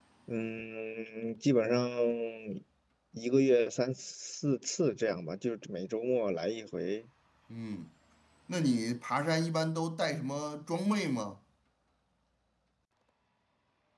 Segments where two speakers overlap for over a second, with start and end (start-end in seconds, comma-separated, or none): none